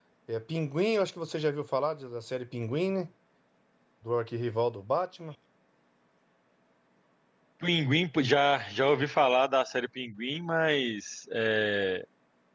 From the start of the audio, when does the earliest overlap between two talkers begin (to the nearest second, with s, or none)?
none